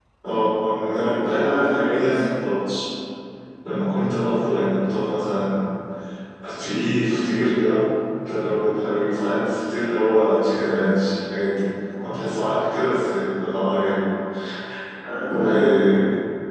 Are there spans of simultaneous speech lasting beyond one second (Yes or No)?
Yes